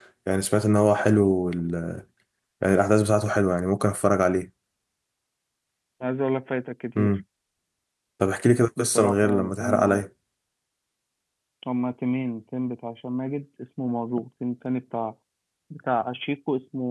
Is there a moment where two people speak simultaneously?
Yes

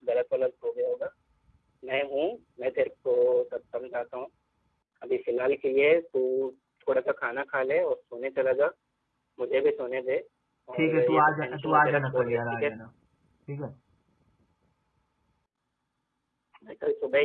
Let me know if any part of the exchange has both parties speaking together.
Yes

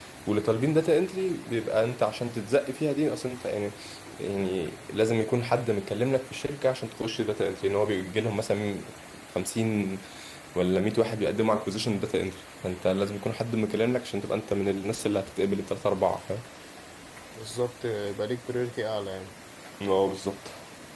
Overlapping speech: No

